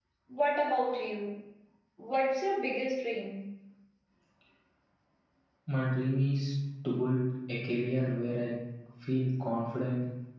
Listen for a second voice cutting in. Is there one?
No

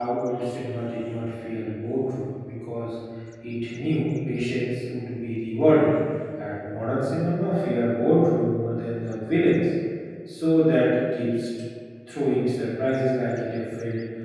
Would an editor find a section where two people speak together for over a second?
No

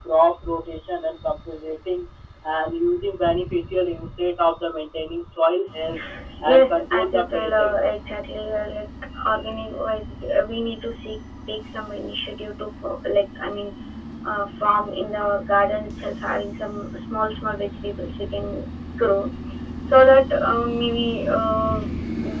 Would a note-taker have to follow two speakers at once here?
Yes, from 6.4 s

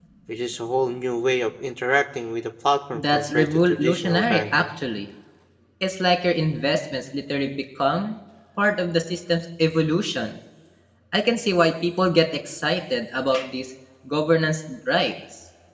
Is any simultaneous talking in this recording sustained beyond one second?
Yes, from 2.9 s

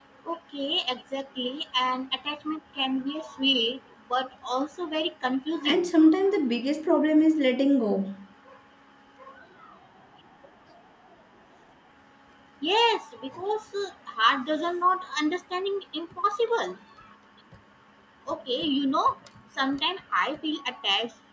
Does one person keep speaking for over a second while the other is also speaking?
No

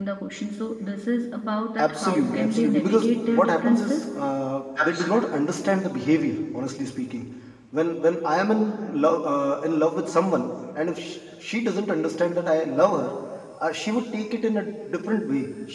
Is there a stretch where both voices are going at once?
Yes, from 1.8 s

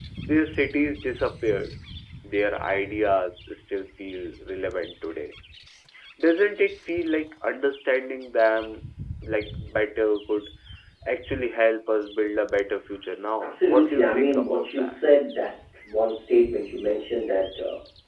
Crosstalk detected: Yes, from 13.4 s

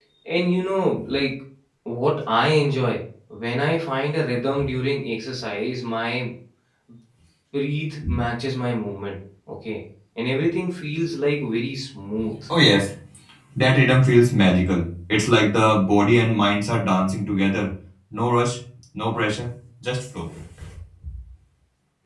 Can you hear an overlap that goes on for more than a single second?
No

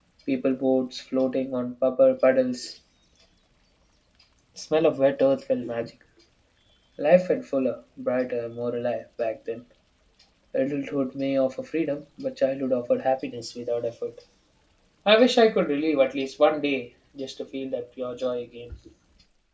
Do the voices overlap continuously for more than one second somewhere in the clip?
No

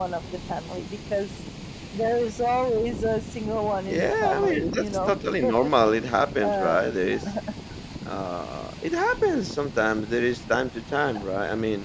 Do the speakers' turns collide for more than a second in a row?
Yes, from 3.8 s

